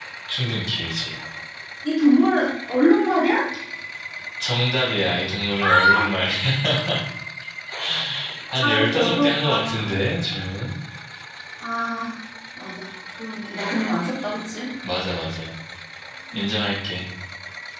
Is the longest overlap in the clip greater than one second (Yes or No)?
Yes